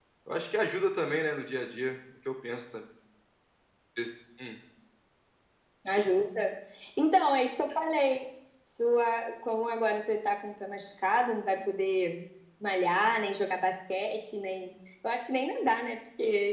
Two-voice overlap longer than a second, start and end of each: none

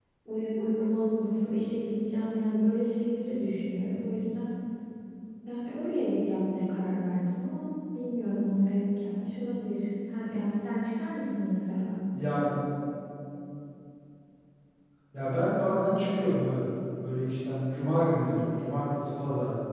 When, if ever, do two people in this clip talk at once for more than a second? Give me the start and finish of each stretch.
none

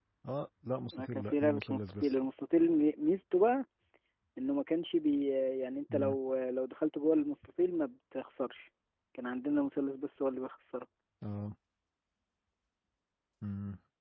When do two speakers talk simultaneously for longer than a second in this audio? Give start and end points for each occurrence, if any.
0.9-2.2

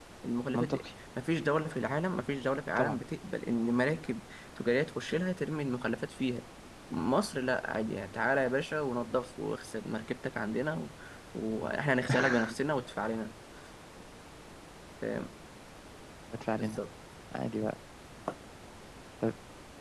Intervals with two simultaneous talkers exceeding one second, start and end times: none

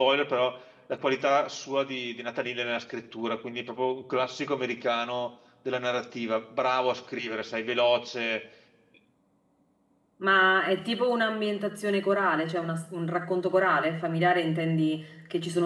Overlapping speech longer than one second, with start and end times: none

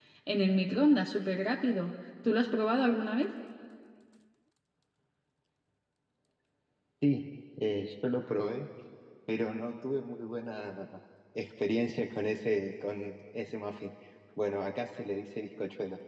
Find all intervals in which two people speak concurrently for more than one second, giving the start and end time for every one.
none

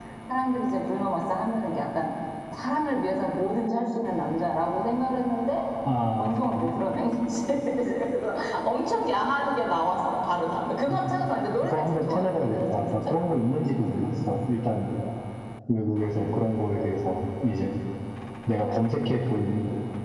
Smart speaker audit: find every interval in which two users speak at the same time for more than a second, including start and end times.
10.9-13.6

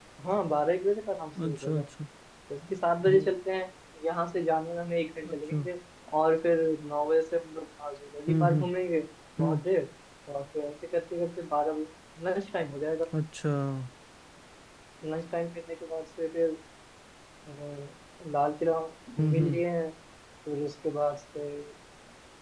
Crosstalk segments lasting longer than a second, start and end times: none

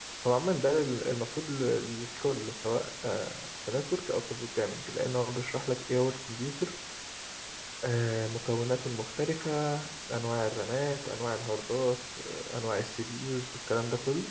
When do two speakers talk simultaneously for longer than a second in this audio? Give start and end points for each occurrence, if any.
none

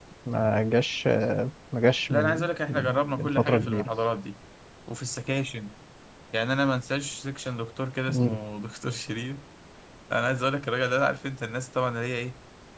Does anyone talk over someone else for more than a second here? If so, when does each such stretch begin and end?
2.1-3.9

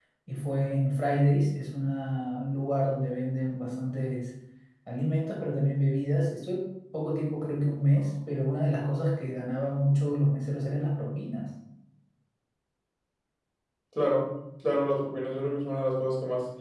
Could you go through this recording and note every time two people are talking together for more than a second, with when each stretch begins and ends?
none

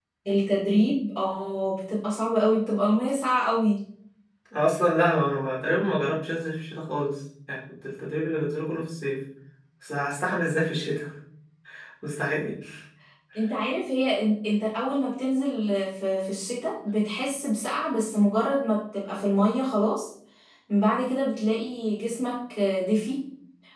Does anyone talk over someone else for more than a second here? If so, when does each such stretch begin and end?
none

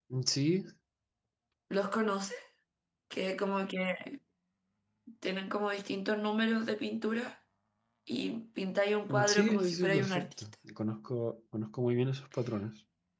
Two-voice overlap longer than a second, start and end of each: 9.1-10.3

